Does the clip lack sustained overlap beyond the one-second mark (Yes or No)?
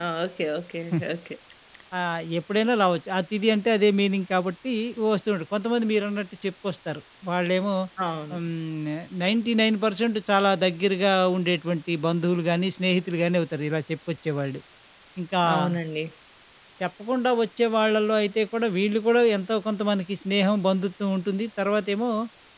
Yes